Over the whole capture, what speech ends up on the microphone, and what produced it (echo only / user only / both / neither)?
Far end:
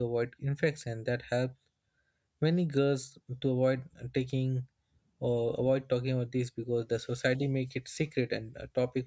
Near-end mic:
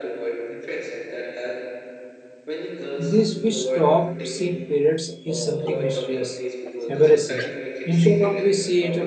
both